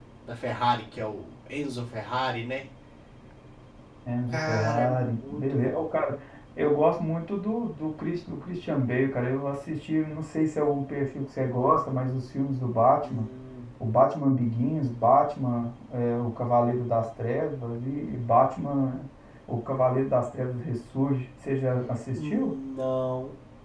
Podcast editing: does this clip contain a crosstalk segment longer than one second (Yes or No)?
Yes